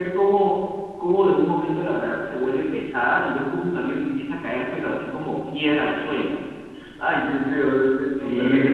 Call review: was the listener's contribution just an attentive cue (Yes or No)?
No